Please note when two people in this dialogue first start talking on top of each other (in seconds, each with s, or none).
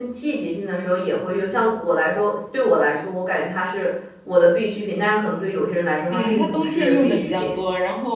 6.1 s